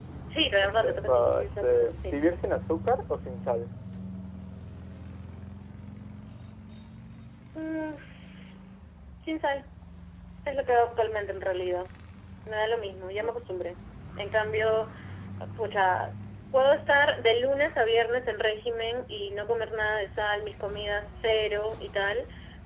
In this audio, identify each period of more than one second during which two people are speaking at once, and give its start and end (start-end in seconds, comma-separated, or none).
0.6-2.2